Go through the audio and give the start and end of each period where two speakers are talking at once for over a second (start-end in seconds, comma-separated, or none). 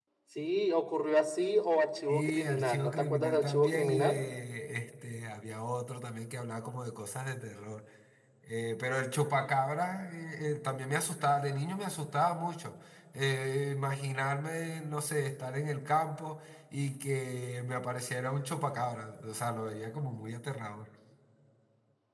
2.1-4.2